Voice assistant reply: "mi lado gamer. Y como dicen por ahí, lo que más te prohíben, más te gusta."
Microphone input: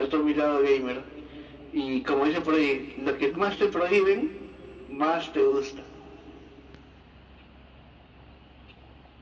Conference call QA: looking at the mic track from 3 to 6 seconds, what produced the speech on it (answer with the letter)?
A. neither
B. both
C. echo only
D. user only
C